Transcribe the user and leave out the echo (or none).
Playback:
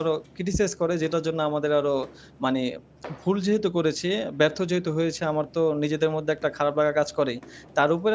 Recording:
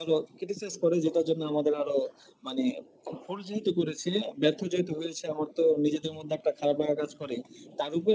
none